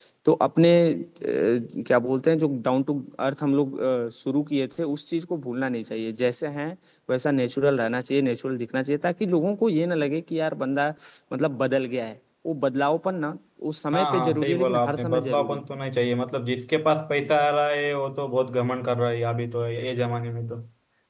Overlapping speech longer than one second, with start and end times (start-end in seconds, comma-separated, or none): 13.9-15.6